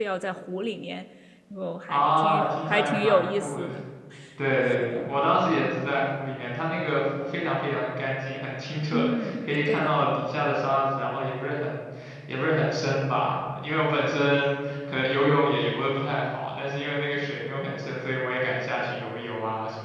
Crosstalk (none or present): present